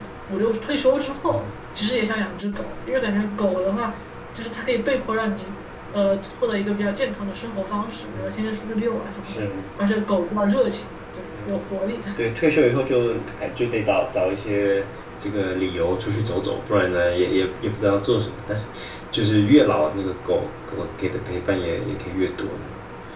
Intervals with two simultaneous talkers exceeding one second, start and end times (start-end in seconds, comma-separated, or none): none